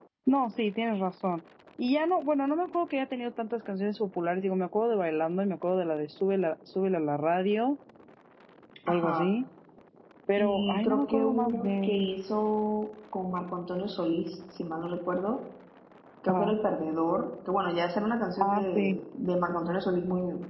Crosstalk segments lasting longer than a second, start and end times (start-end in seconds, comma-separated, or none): 10.4-12.1